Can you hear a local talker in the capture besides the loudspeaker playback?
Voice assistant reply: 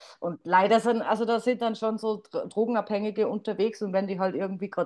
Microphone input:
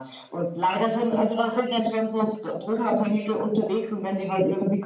No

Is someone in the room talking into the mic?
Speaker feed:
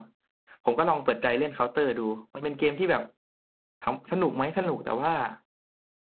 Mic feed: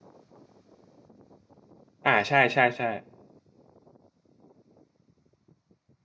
Yes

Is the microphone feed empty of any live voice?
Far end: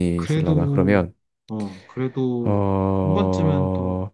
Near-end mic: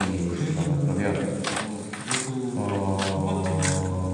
Yes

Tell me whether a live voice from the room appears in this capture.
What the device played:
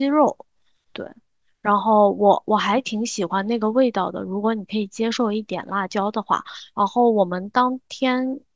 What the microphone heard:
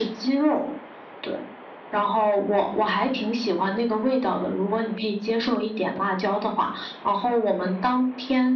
No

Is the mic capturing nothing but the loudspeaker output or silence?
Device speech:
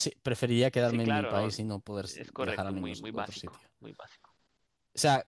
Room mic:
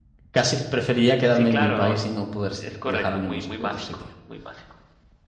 Yes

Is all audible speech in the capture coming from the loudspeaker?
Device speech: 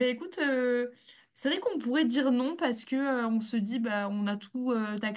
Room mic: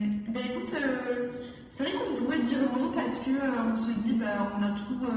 Yes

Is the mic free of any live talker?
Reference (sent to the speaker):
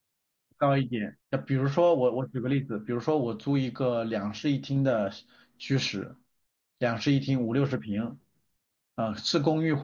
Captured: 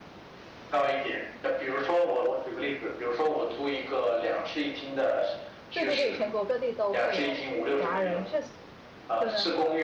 No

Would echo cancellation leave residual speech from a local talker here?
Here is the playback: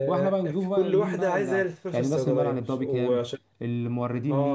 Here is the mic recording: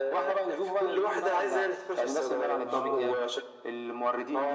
Yes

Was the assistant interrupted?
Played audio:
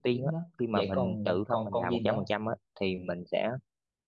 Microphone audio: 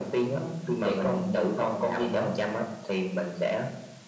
No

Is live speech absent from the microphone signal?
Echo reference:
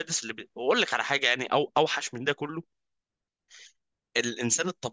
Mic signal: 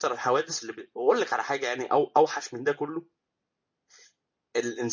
Yes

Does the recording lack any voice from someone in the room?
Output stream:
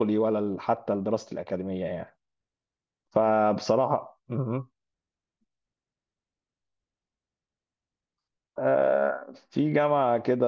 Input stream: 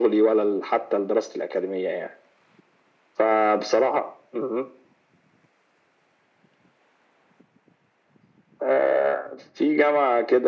Yes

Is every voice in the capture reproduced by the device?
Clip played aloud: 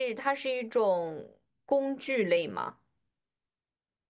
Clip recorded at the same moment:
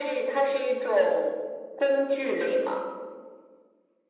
Yes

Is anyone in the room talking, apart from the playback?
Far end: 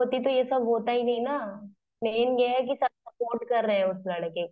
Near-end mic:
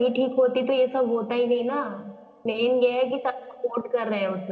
No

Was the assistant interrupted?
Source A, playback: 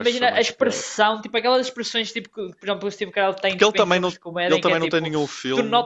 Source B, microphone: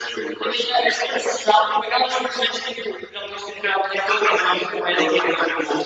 No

